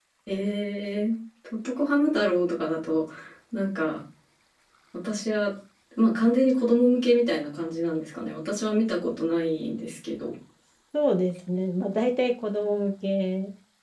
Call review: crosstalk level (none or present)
none